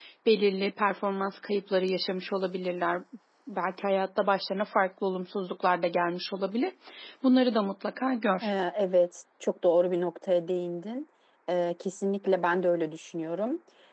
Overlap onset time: none

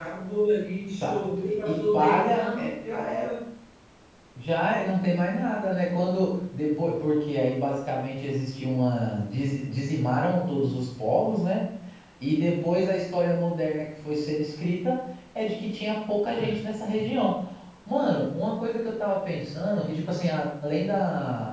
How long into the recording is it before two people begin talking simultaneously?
1.0 s

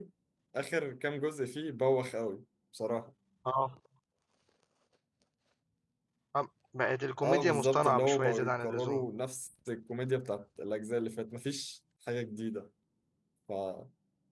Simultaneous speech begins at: 7.2 s

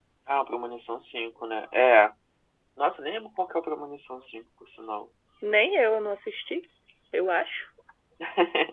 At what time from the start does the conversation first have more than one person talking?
none

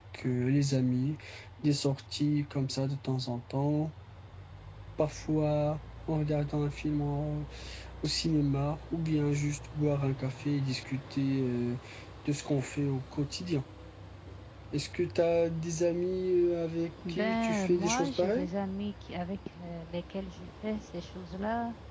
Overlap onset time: 17.0 s

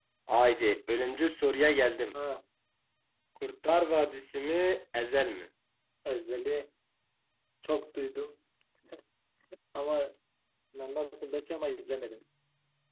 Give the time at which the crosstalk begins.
none

